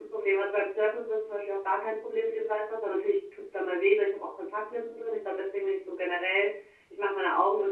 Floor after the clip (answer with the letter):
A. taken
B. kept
B